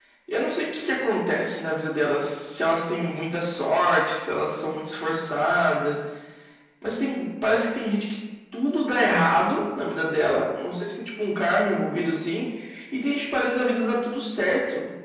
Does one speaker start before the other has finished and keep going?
No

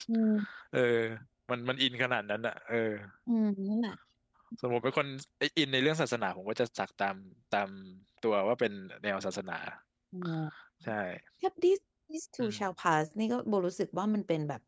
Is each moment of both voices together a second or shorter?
Yes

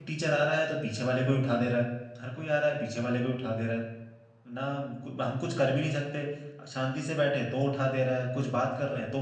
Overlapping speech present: No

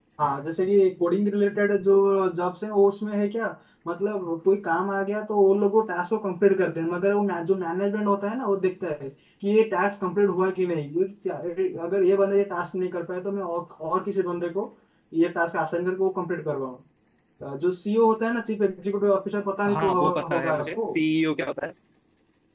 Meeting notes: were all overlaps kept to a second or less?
No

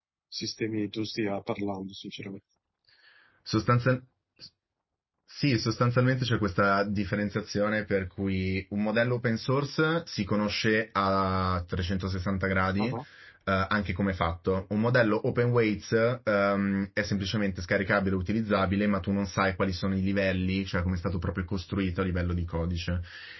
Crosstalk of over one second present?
No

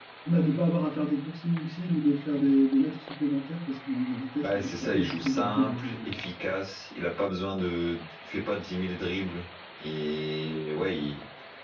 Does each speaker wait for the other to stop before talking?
No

